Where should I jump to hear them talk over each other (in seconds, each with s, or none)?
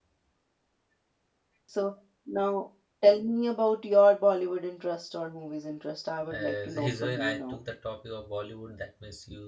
6.3 s